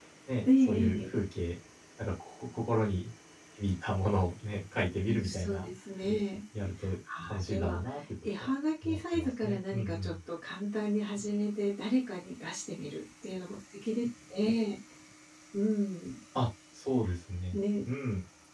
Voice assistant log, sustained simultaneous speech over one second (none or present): present